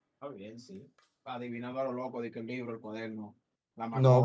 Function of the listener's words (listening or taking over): taking over